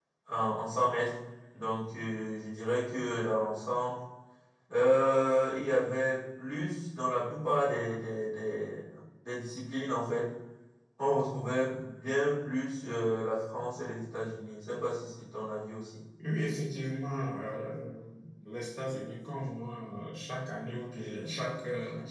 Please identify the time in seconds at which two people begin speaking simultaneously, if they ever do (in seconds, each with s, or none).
none